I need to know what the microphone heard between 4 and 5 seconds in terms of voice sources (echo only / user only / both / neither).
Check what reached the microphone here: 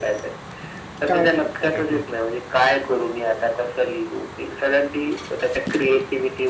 echo only